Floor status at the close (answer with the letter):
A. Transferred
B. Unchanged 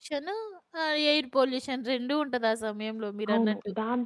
A